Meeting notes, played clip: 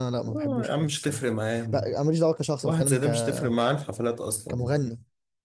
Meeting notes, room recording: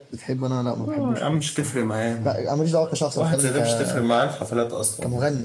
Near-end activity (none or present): none